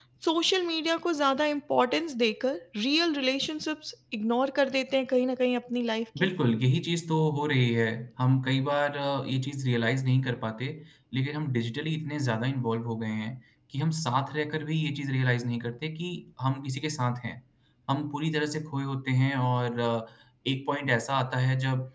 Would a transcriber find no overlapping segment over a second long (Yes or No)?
Yes